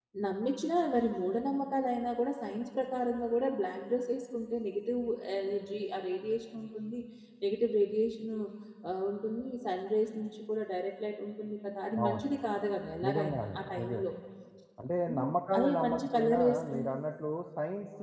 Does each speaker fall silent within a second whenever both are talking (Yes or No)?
No